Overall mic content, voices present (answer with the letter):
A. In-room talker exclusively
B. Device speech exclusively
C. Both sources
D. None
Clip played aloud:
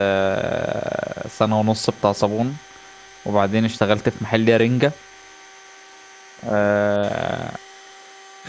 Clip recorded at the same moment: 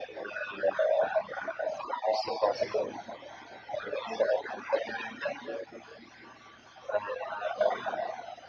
B